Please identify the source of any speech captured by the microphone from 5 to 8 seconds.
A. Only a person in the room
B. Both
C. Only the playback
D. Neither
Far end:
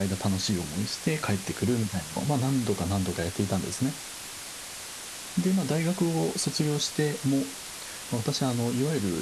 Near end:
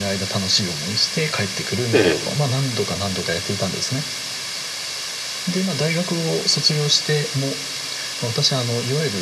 C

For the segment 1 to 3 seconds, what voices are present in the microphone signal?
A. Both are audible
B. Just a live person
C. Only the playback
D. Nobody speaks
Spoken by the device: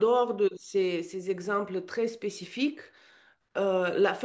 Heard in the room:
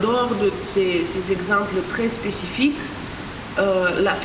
C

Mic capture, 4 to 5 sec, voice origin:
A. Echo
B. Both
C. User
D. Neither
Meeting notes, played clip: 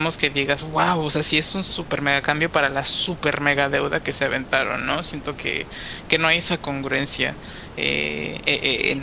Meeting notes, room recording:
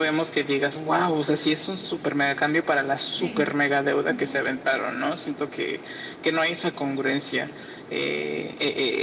B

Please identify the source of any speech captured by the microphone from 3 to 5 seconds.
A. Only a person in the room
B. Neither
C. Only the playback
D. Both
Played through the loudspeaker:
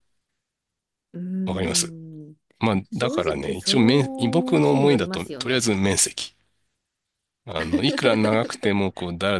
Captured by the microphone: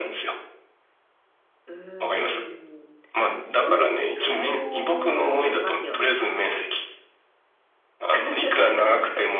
C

